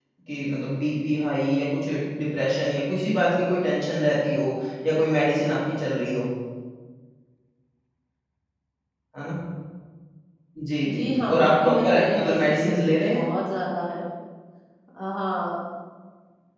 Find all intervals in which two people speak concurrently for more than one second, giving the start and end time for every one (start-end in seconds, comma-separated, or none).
10.9-13.2